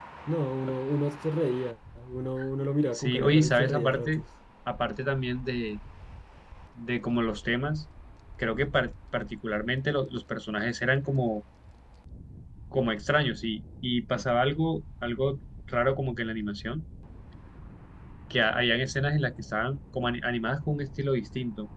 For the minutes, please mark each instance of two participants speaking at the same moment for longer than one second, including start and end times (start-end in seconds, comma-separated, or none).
2.9-4.2